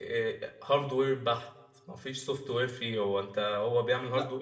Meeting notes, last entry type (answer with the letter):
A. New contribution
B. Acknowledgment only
B